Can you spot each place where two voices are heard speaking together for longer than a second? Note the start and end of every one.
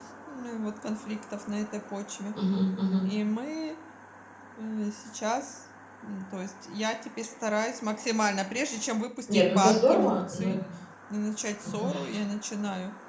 9.3-10.6

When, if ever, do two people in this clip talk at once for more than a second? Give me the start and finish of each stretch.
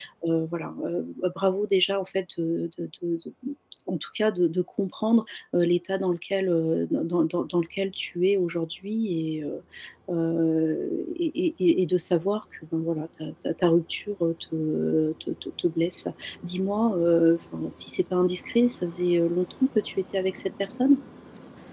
none

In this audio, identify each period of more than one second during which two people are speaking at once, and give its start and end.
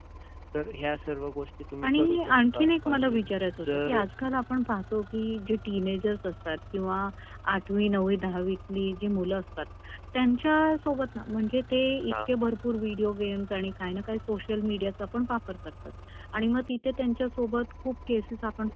1.9-3.3

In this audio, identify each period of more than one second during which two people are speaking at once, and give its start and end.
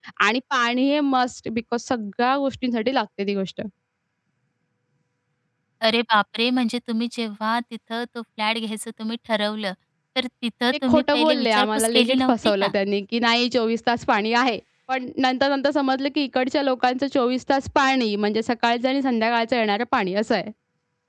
10.9-12.7

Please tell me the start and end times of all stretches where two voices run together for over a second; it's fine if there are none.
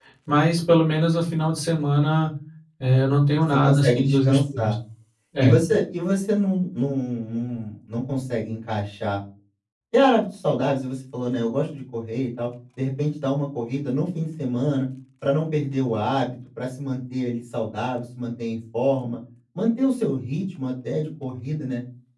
3.5-4.7

